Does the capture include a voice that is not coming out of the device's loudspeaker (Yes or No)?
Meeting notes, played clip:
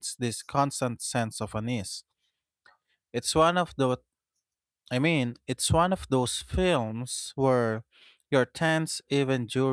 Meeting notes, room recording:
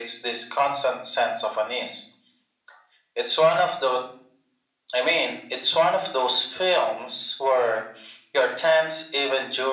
No